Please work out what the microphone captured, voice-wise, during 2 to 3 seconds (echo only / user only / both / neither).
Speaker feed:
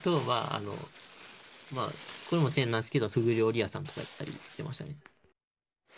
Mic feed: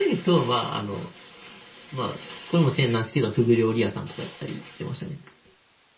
echo only